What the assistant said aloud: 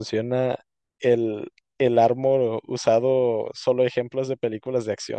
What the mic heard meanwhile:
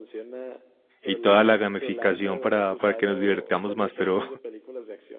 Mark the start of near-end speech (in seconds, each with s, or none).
1.0 s